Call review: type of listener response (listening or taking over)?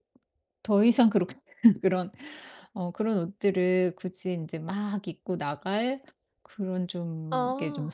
listening